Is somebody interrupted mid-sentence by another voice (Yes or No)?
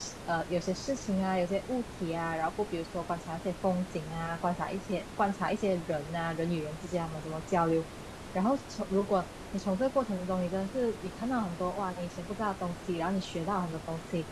No